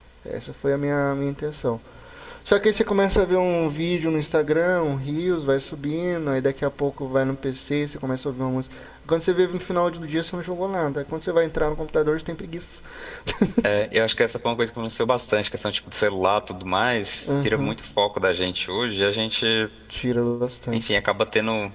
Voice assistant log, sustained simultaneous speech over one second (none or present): none